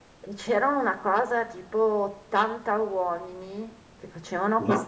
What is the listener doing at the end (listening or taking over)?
listening